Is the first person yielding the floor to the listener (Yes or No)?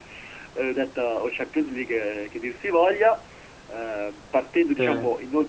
No